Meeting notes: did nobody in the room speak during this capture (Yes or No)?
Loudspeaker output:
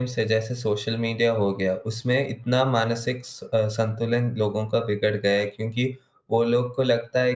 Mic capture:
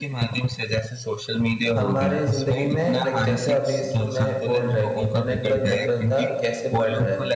No